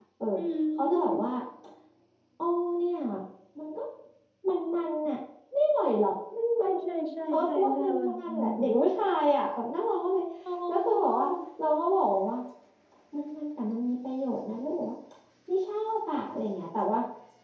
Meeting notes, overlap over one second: present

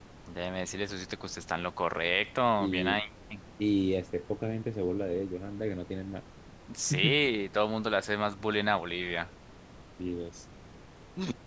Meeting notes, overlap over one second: none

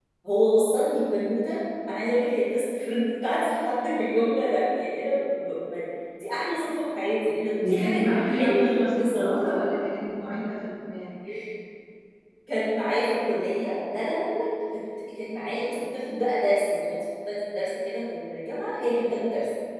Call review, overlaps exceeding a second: present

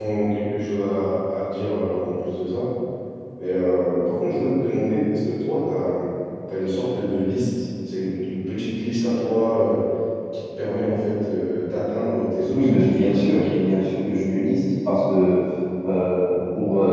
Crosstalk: present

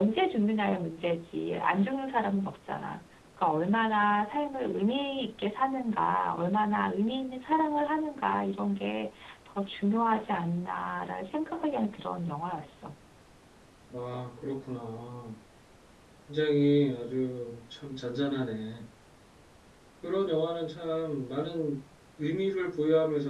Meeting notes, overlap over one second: none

